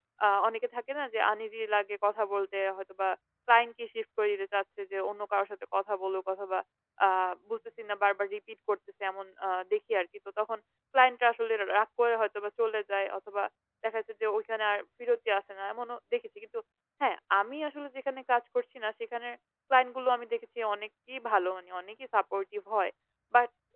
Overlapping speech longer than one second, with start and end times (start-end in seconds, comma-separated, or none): none